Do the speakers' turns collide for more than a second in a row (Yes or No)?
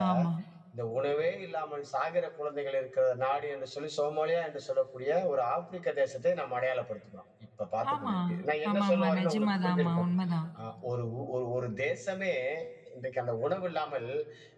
Yes